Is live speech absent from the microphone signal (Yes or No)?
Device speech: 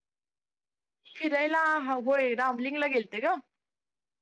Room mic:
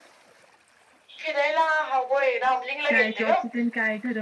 No